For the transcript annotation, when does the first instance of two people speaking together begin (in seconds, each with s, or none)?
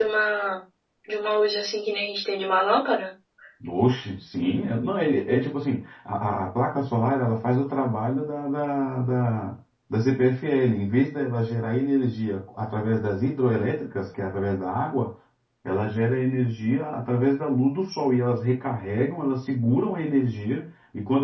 none